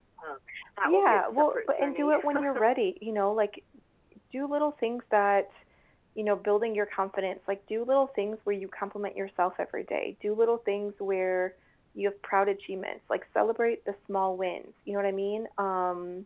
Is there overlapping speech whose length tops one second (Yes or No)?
Yes